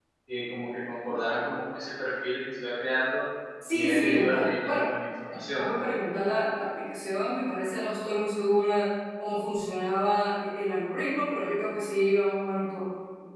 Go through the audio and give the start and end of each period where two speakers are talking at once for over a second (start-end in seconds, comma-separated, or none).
3.7-4.9